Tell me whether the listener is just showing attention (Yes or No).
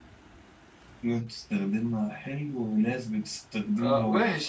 No